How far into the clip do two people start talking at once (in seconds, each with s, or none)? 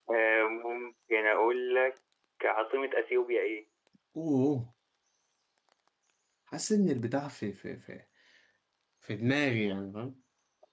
none